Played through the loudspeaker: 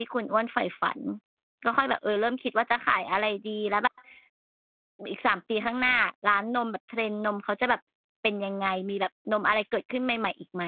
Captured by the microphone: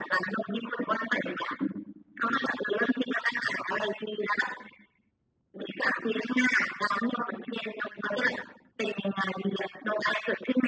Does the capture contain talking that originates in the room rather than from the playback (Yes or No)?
No